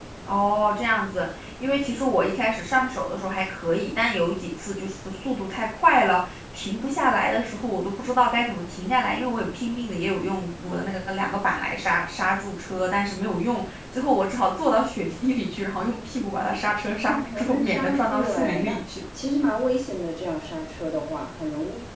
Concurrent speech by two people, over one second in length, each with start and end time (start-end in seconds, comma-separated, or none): 17.1-18.8